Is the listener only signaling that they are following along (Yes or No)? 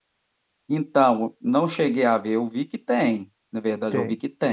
Yes